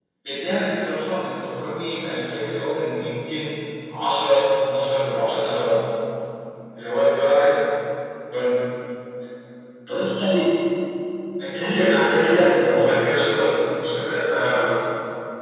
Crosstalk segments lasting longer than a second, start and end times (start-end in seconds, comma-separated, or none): 11.6-13.0